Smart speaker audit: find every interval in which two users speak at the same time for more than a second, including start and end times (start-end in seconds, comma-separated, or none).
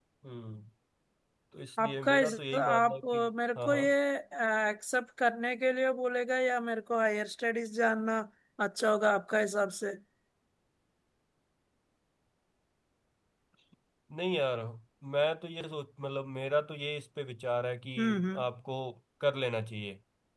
1.8-3.2